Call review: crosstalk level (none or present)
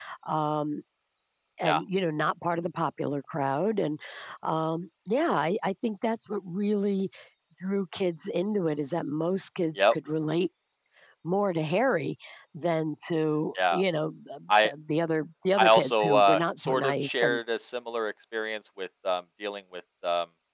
present